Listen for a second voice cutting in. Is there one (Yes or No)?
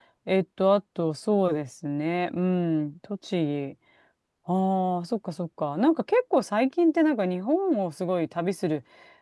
No